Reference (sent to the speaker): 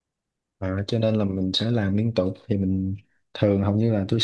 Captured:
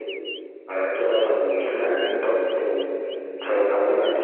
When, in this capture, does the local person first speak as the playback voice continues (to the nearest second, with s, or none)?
none